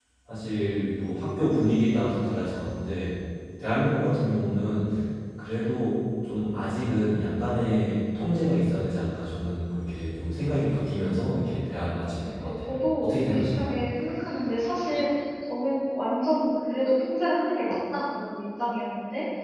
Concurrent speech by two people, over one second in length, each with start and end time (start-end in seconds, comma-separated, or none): 12.4-13.7